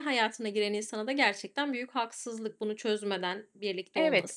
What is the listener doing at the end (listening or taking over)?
taking over